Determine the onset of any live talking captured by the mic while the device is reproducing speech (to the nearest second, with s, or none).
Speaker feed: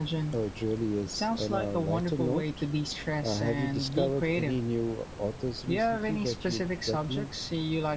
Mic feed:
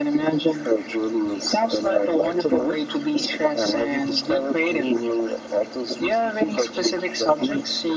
none